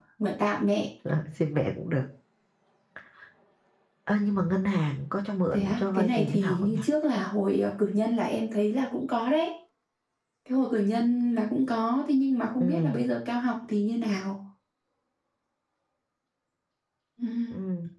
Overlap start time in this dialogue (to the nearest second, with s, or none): 6 s